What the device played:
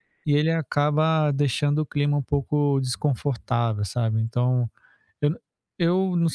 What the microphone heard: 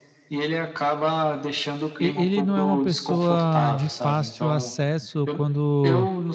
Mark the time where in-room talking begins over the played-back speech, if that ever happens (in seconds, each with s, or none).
2.0 s